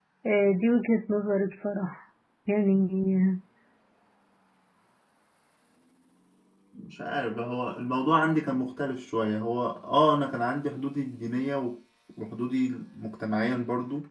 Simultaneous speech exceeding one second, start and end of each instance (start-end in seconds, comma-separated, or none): none